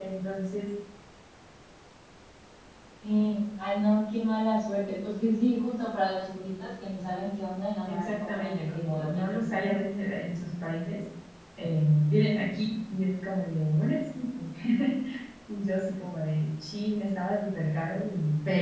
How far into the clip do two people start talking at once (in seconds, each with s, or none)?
7.9 s